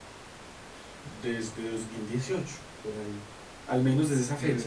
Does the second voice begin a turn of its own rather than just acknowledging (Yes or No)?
No